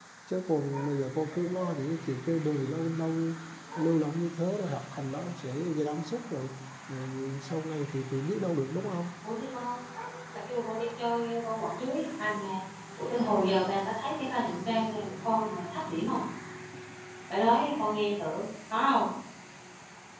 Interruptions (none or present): none